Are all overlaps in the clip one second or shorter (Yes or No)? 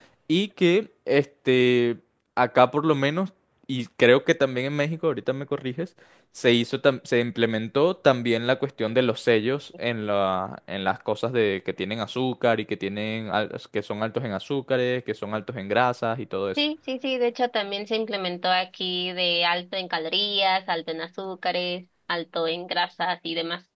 Yes